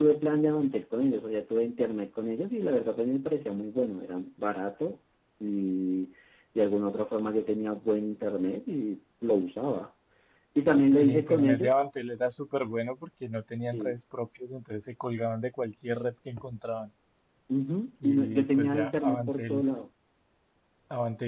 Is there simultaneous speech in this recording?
Yes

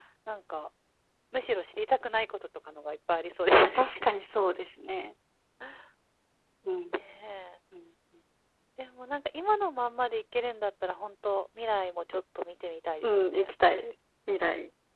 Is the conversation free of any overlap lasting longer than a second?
Yes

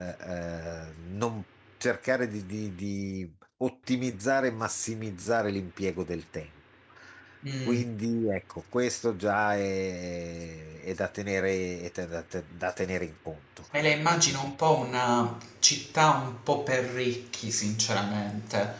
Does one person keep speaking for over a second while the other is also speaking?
No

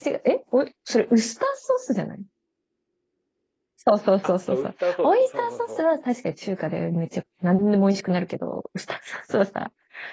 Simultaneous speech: Yes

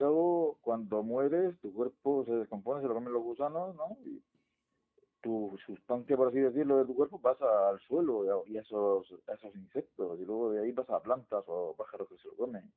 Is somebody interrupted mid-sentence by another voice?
No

